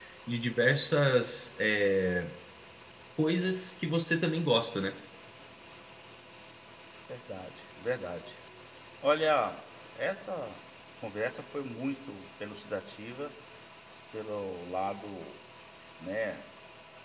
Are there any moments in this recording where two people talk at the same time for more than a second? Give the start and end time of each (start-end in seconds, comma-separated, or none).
none